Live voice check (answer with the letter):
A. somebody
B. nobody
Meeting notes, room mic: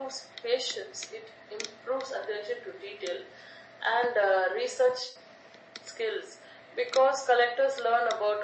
B